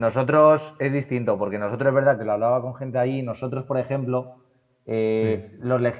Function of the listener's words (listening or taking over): listening